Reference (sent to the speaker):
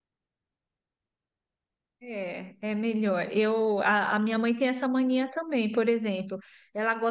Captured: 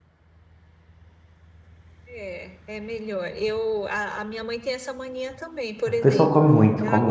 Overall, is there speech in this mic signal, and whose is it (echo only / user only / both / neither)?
both